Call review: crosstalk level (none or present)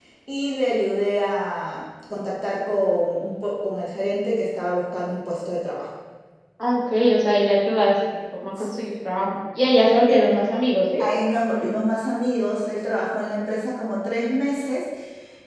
none